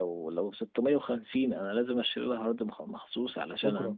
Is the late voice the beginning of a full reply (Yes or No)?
No